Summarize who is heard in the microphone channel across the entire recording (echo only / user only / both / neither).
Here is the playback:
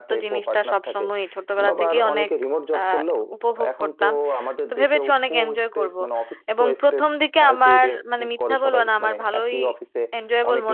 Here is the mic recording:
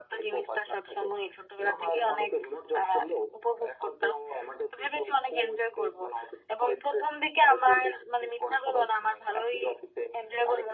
echo only